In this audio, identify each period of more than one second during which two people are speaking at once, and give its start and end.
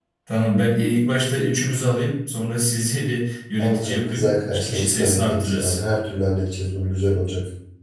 3.6-5.8

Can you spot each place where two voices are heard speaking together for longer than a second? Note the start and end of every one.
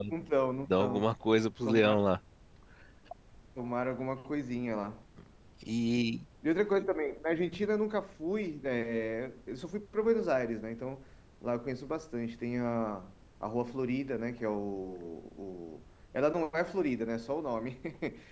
none

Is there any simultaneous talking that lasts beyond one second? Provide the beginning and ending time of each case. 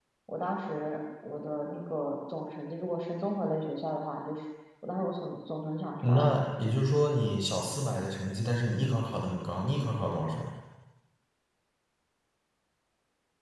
none

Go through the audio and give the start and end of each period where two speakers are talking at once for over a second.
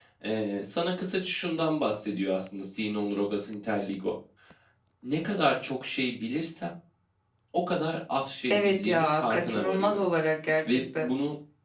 8.5-10.0

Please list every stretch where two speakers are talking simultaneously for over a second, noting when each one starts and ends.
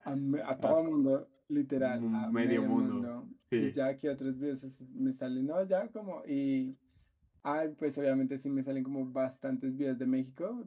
1.8-3.1

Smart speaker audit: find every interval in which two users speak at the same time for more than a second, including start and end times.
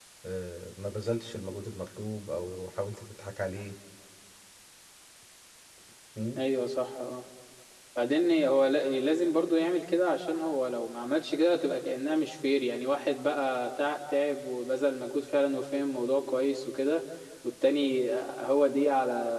none

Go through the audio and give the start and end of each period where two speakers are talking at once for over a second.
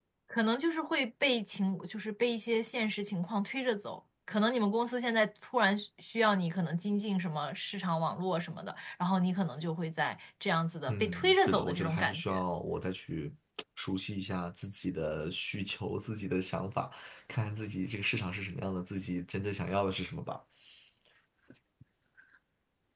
10.9-12.4

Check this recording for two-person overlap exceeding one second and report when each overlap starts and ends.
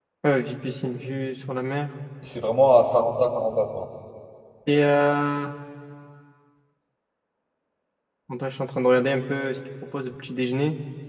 none

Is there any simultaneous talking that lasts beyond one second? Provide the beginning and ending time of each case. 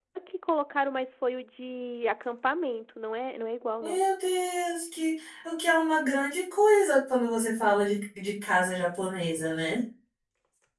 none

